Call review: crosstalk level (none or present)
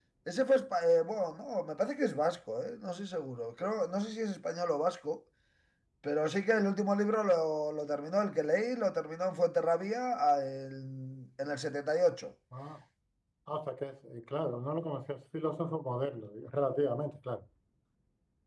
none